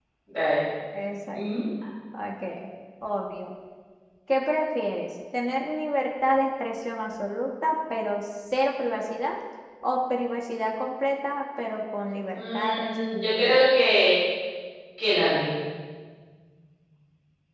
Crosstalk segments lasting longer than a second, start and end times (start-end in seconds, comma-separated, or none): 12.3-13.6